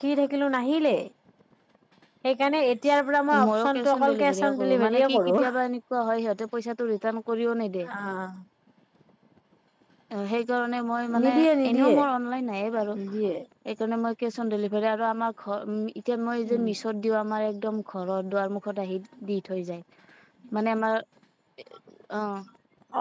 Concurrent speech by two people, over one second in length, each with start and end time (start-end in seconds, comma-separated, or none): 3.5-5.3